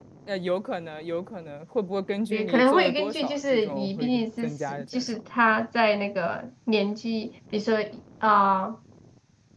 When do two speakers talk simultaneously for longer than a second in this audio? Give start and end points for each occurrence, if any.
2.3-5.0

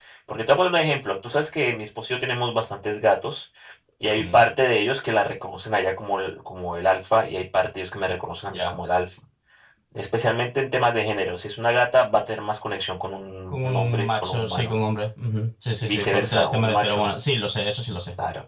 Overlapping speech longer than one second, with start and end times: 13.5-14.7, 15.8-17.1

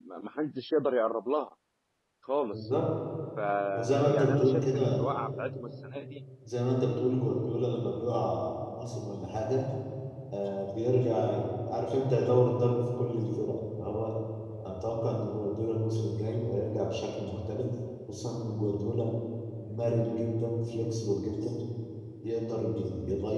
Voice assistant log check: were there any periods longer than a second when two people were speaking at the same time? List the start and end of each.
3.7-5.1

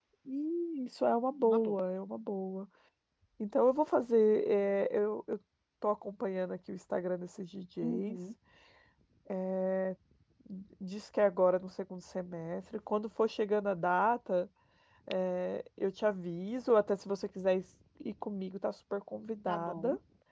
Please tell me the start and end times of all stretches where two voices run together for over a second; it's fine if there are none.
none

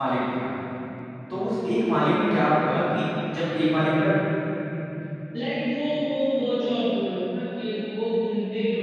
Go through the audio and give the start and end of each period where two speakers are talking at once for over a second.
none

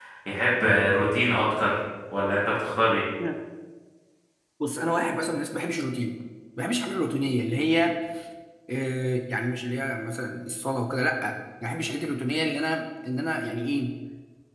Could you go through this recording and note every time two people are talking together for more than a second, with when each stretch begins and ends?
none

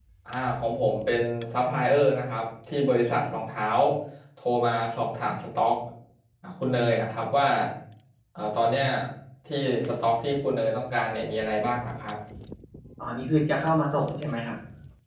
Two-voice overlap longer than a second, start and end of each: none

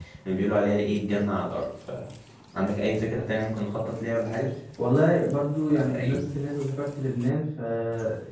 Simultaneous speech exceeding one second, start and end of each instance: none

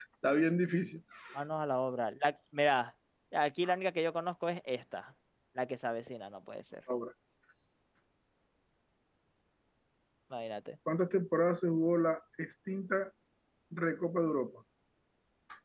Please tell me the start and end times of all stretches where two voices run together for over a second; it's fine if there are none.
none

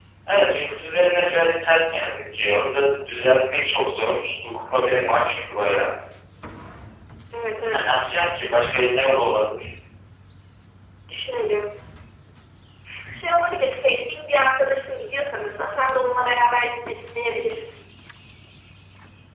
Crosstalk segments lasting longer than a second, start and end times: none

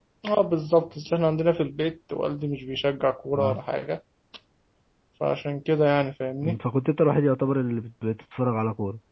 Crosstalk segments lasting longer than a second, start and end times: none

